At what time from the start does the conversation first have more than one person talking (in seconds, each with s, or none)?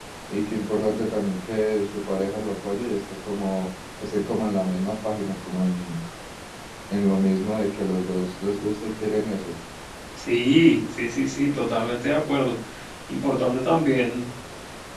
none